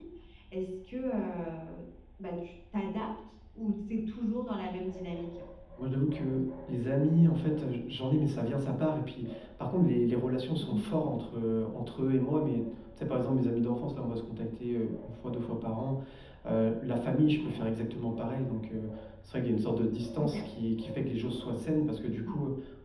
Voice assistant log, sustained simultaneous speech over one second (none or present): none